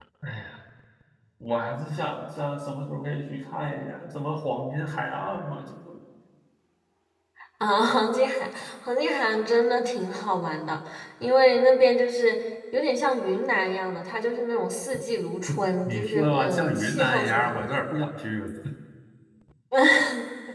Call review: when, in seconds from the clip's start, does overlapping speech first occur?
15.9 s

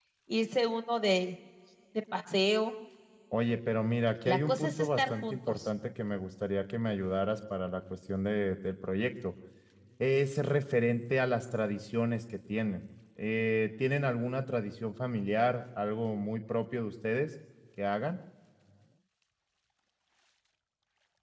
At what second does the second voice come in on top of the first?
4.2 s

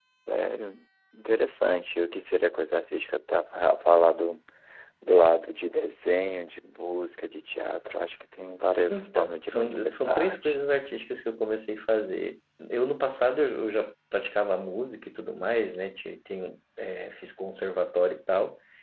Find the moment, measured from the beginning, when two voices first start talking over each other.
8.9 s

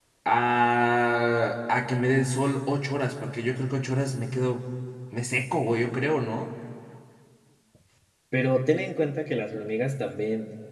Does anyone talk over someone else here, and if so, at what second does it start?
none

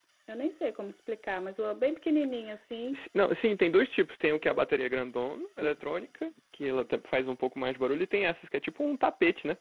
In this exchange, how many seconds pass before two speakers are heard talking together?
none

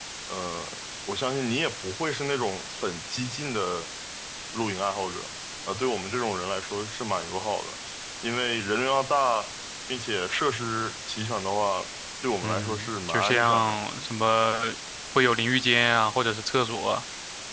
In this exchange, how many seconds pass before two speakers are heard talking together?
12.4 s

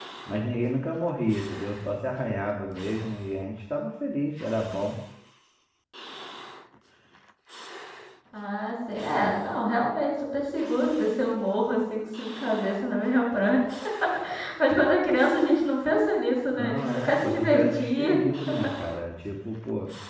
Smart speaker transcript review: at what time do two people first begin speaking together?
16.5 s

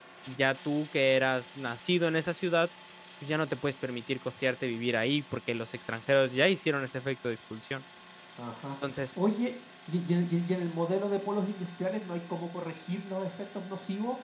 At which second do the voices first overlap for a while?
none

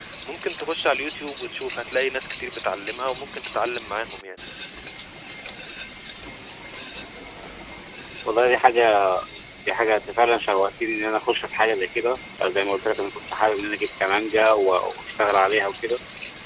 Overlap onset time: none

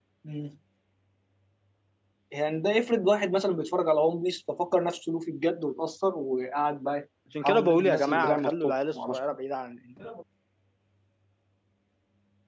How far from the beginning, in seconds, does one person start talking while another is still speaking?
7.3 s

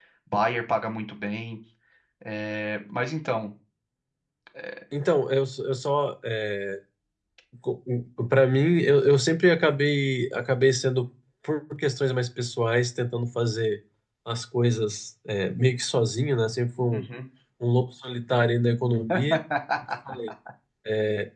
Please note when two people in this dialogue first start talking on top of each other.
none

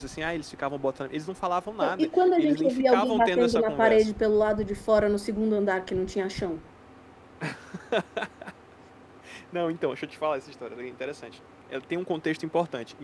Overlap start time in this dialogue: 1.8 s

